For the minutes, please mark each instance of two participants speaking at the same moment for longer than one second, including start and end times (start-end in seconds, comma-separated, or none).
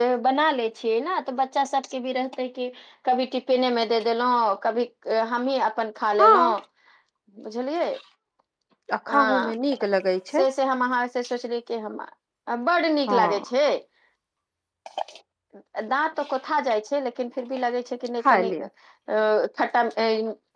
none